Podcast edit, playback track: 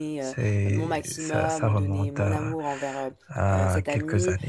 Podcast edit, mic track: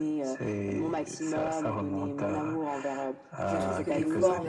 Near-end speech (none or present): present